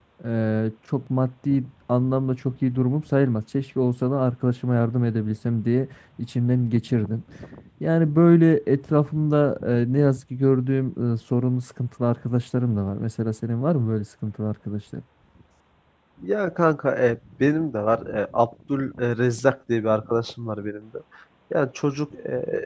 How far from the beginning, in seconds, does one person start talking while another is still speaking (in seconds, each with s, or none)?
none